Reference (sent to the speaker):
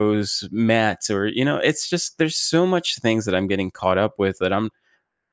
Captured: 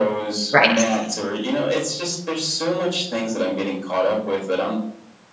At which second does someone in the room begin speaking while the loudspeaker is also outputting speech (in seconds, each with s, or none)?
0.5 s